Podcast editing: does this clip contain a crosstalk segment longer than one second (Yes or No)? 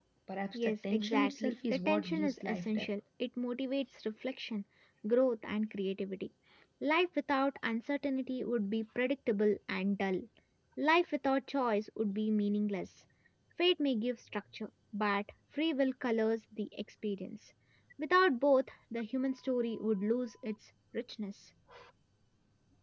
Yes